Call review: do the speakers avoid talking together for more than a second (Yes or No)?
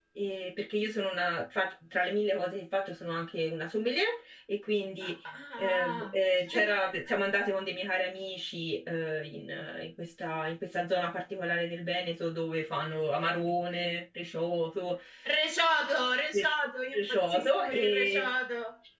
No